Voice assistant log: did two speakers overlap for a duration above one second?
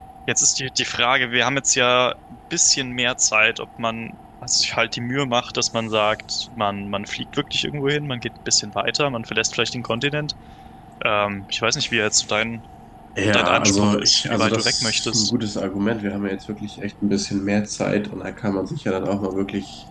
Yes, from 13.3 s

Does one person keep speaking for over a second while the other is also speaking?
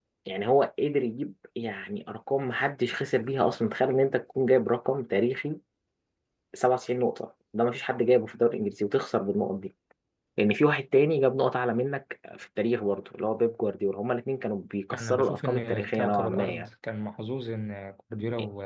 Yes, from 14.9 s

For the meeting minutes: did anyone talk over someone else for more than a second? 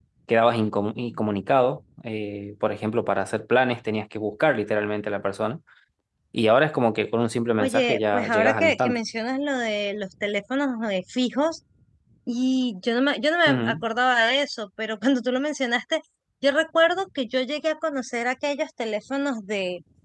Yes, from 7.6 s

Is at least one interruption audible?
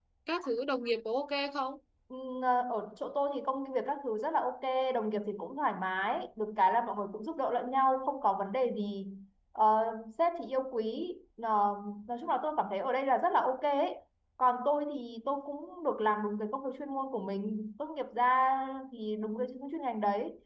No

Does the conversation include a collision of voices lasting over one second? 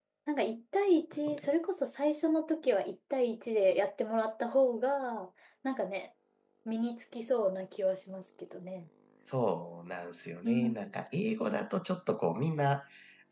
No

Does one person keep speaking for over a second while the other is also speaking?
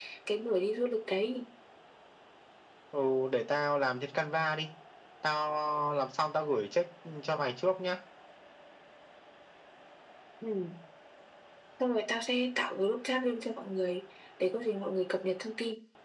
No

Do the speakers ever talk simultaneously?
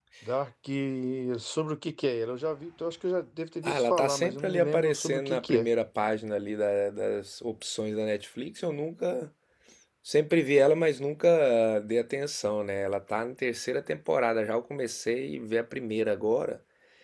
Yes, from 3.6 s

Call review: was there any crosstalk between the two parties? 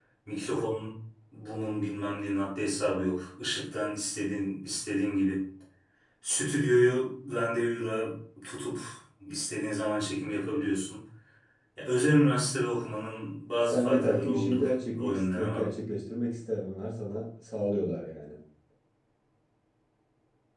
Yes, from 13.6 s

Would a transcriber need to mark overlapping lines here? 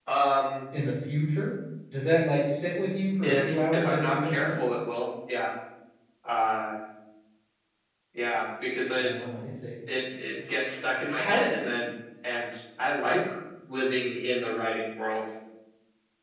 Yes, from 3.2 s

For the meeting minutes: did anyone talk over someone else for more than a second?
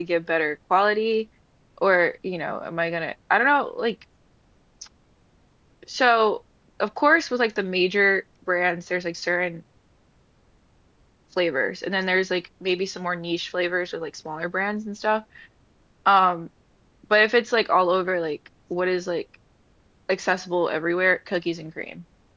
No

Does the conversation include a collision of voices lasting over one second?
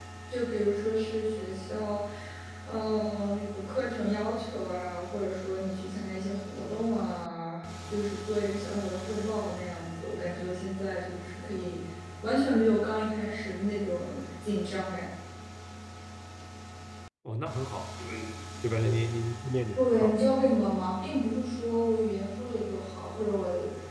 No

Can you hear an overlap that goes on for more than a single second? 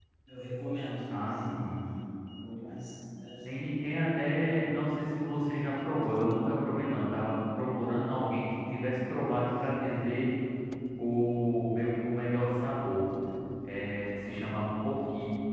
No

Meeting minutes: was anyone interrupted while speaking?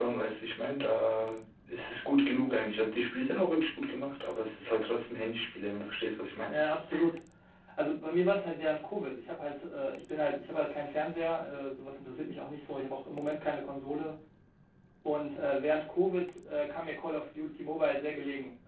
No

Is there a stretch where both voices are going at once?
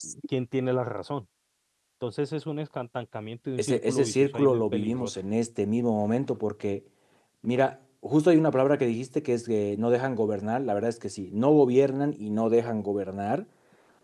Yes, from 3.6 s

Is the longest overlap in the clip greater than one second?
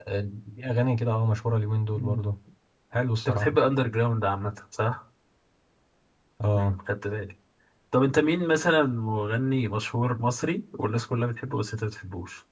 No

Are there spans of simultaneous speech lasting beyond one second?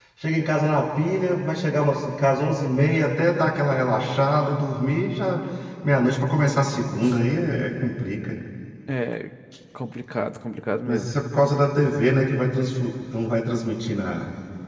No

